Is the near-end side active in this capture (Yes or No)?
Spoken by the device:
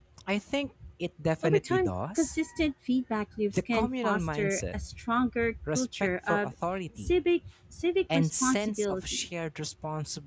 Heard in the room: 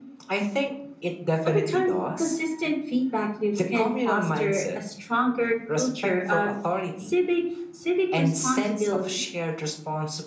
No